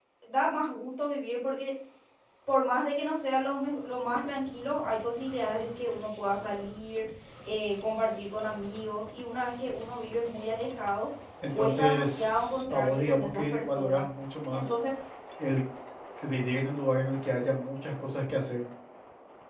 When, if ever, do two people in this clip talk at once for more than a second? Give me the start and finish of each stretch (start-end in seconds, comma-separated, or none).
11.6-14.1